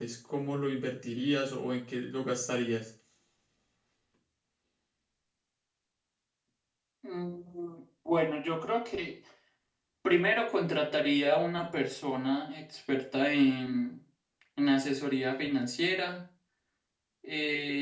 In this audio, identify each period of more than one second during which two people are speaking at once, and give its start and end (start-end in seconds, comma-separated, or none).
none